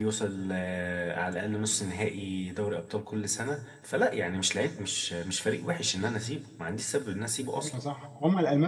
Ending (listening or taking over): taking over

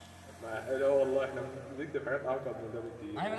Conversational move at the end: taking over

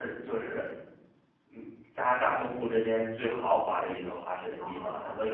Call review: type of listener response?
listening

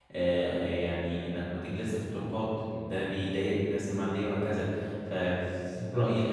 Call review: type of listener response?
listening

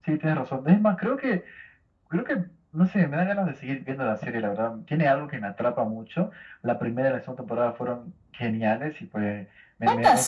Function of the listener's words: listening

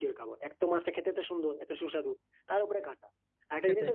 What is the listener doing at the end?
listening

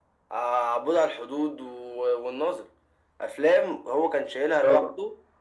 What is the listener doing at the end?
listening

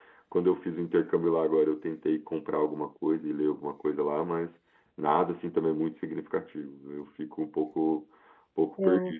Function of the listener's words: listening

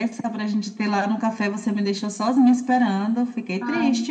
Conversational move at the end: taking over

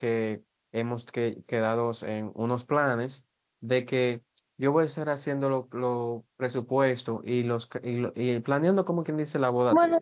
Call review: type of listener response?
taking over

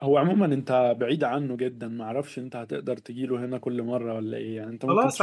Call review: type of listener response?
taking over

